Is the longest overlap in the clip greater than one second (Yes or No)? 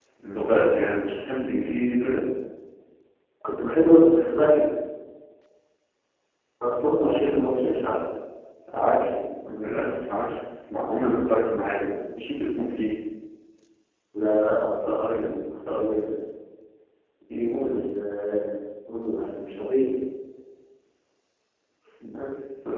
No